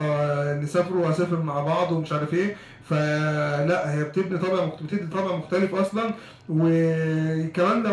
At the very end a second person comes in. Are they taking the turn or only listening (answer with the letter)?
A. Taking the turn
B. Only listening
B